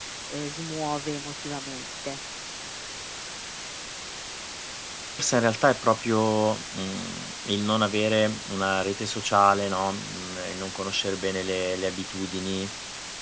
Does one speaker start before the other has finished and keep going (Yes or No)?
No